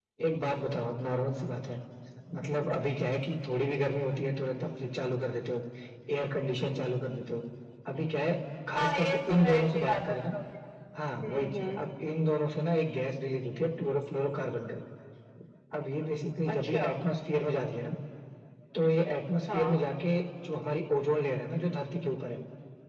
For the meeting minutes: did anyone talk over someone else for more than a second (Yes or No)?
Yes